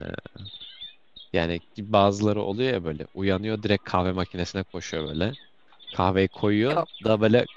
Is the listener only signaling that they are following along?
Yes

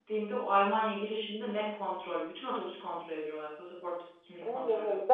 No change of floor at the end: No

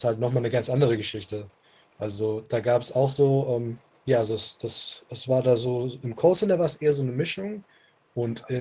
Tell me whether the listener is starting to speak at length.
No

